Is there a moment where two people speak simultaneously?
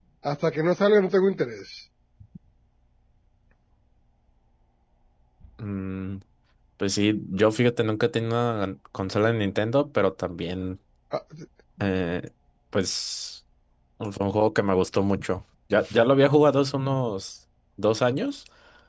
No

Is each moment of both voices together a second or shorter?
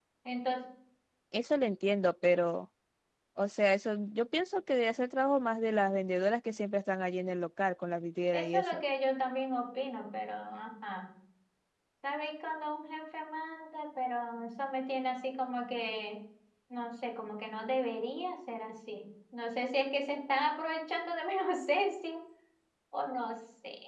Yes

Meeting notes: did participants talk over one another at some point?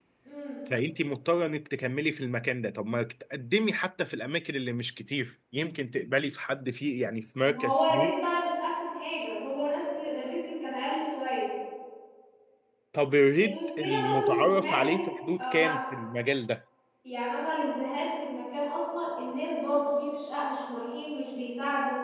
Yes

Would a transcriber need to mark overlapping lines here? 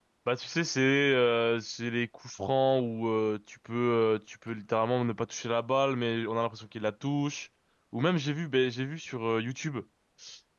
No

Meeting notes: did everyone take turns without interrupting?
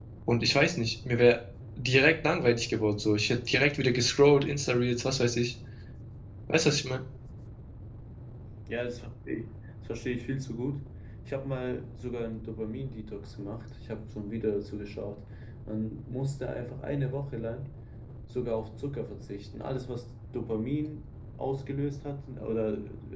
Yes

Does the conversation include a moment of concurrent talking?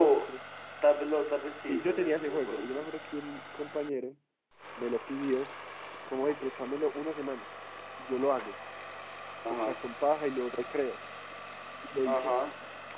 Yes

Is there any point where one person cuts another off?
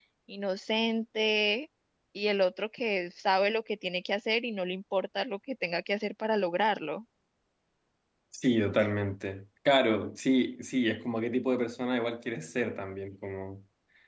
No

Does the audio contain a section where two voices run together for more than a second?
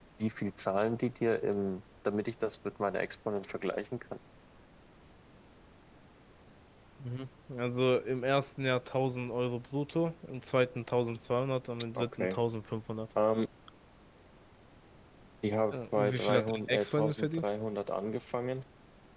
Yes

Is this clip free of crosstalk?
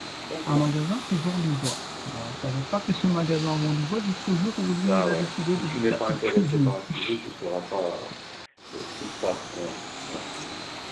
No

